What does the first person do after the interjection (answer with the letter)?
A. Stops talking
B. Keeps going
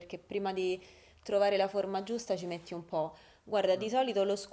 B